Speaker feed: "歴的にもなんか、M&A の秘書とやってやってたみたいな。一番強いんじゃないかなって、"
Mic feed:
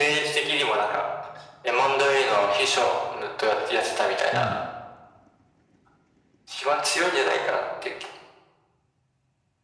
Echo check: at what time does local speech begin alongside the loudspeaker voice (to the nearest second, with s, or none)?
4 s